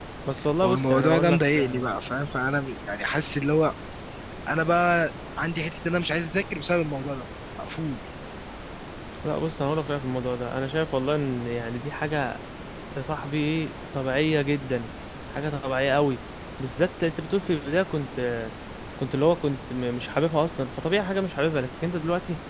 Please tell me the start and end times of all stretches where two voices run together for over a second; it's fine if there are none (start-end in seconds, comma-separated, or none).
0.6-1.9